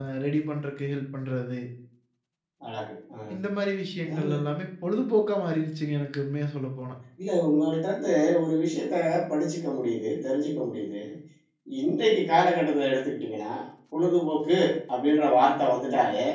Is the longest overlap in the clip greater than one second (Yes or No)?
No